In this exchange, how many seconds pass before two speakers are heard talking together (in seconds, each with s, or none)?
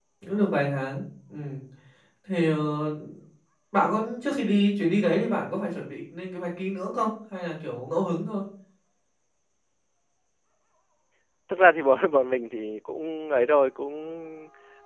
none